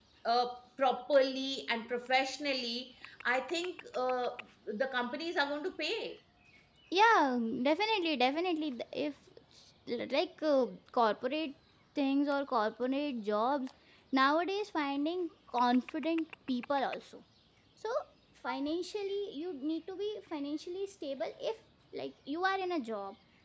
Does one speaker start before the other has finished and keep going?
No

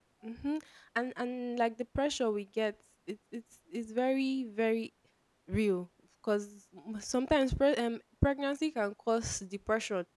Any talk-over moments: No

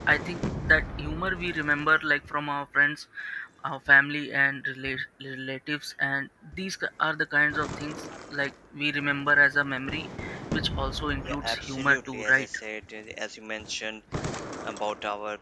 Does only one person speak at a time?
No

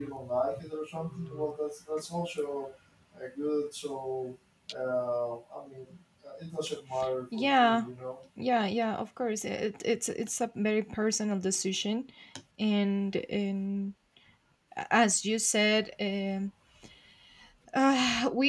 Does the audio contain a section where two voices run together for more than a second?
No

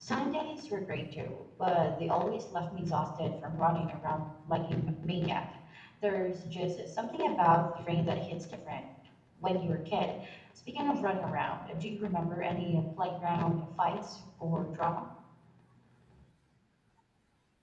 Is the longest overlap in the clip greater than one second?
No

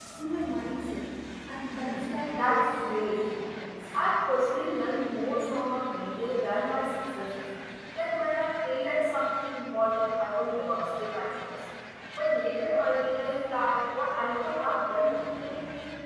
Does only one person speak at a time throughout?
No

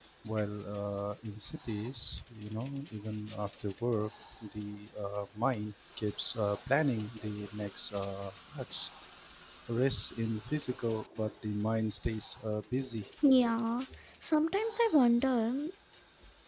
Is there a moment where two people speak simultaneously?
No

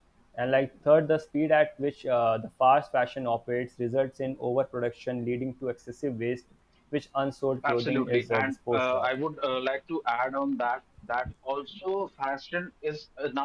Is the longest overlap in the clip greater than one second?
Yes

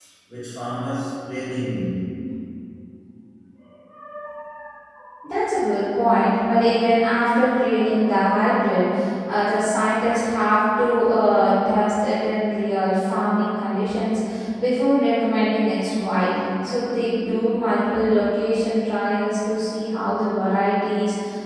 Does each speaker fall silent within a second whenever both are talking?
Yes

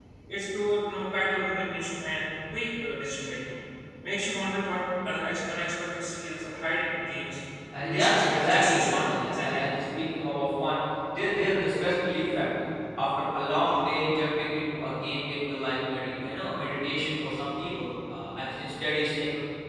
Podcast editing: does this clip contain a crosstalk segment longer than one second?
Yes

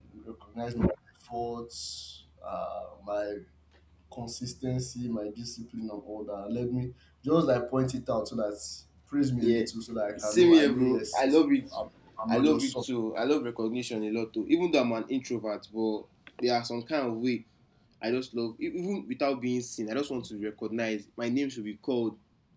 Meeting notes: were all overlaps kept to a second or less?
No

